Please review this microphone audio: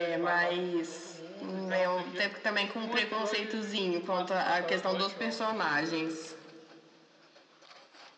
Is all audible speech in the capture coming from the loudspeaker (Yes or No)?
No